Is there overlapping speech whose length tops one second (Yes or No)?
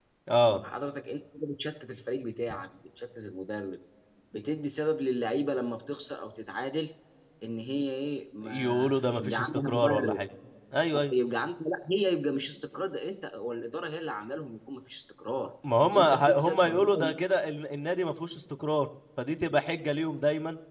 Yes